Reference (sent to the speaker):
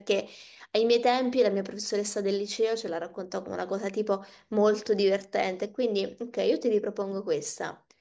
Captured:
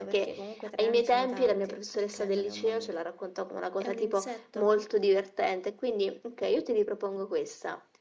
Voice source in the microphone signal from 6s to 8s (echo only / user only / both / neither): echo only